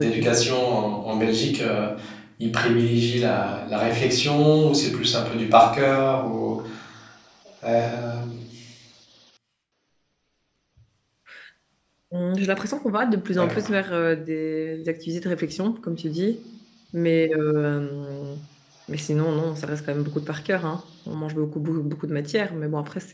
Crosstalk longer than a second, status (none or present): none